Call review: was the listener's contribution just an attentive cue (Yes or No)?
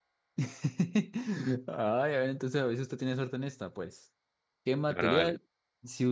Yes